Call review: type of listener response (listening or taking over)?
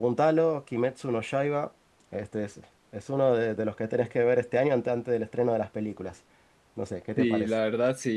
taking over